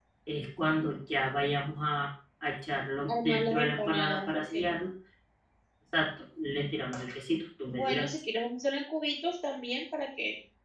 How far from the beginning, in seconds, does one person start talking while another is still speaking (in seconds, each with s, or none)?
3.1 s